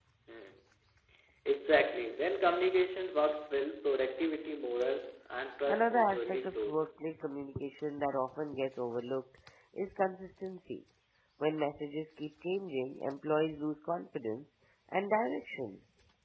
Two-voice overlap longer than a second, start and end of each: 5.7-6.9

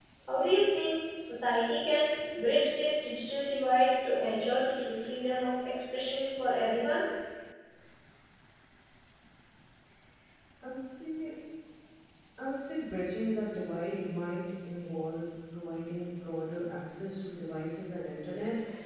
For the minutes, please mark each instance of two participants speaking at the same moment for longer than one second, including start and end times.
none

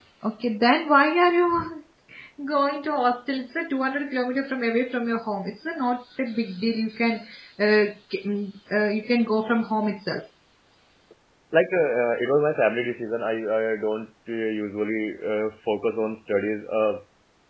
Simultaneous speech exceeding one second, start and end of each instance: none

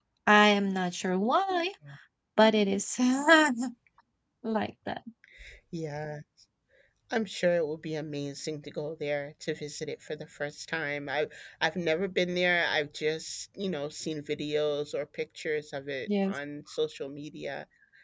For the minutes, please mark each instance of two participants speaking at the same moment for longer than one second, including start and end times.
none

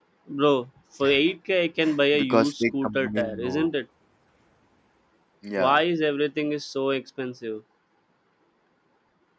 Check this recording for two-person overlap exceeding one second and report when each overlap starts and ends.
2.1-3.7

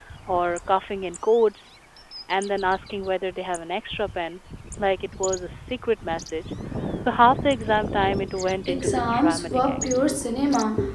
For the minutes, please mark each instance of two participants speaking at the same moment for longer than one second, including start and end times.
8.8-10.1

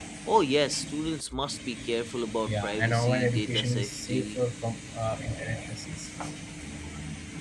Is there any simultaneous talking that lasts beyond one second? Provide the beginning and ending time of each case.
2.5-4.4

